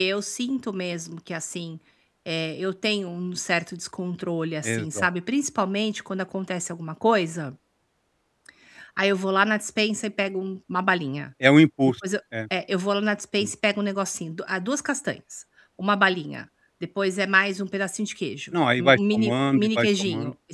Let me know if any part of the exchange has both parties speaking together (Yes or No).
Yes